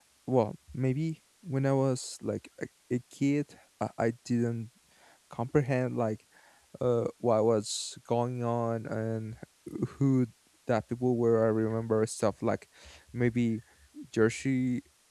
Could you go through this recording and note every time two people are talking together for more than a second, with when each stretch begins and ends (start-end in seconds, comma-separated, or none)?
none